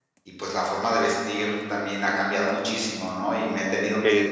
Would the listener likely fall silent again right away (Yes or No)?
Yes